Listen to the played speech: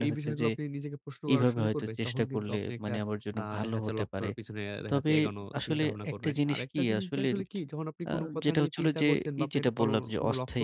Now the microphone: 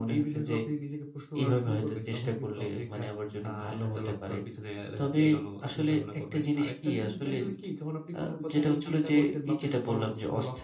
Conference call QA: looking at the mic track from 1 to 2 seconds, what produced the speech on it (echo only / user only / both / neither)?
echo only